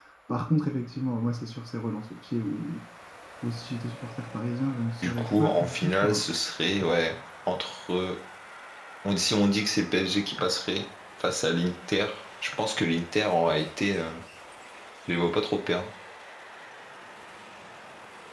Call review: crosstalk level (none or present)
present